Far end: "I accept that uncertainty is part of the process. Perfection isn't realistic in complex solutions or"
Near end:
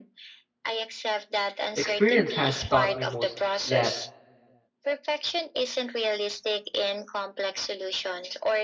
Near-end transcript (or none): Experience has taught me most that